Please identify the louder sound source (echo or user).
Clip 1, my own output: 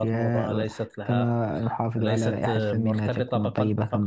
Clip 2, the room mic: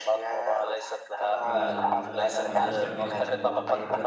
echo